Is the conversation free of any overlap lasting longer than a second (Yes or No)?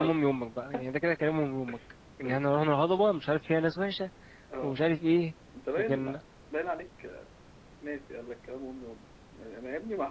Yes